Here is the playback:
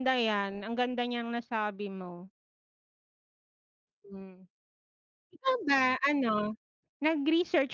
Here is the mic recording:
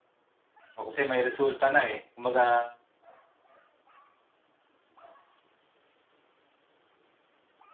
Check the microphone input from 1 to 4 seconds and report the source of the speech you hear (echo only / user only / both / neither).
user only